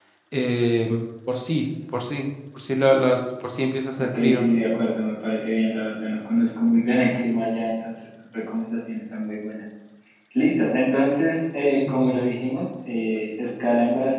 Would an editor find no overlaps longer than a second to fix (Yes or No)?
Yes